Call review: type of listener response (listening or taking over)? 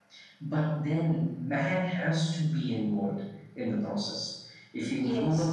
listening